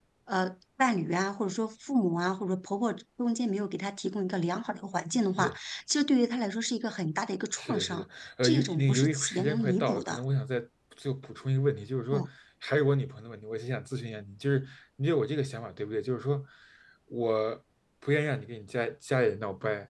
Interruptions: present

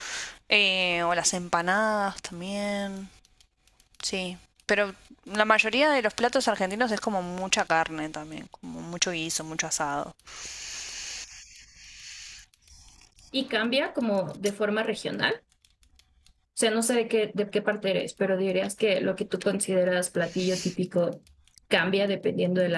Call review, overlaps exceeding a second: none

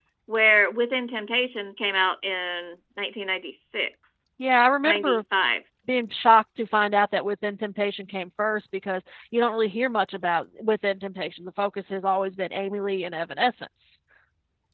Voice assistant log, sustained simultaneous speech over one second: none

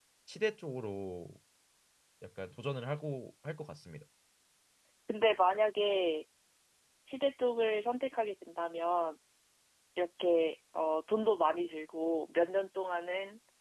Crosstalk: none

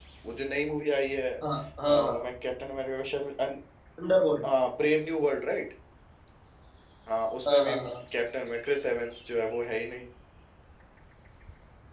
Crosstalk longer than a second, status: none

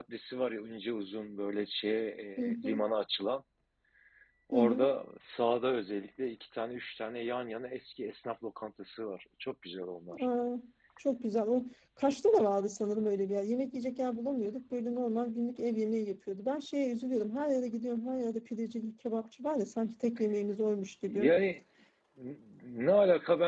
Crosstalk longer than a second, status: none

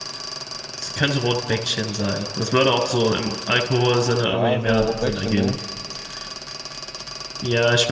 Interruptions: present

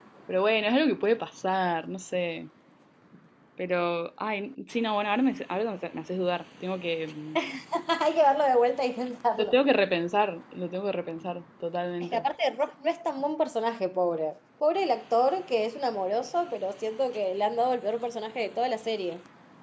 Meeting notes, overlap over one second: none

